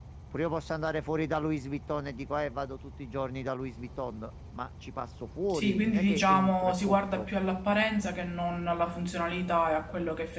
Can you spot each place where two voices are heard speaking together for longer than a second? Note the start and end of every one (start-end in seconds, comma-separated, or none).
5.5-7.3